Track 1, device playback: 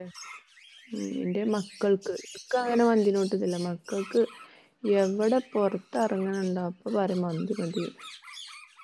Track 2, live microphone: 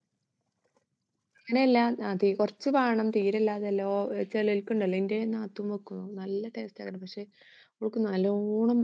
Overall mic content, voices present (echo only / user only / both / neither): user only